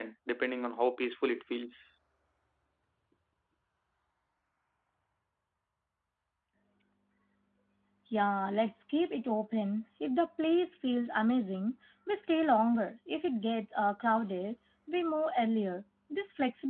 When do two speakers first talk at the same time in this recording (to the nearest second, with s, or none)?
none